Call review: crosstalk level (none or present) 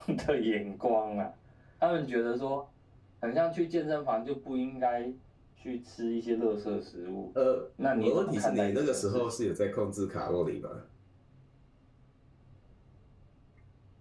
present